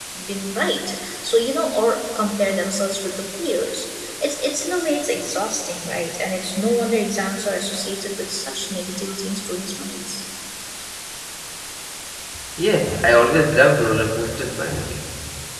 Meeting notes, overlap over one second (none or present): none